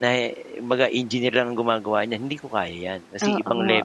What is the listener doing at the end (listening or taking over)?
taking over